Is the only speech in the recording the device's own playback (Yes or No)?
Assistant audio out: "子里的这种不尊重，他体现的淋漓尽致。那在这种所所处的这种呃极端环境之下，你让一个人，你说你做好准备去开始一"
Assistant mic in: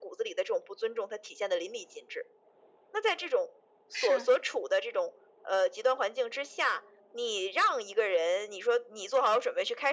No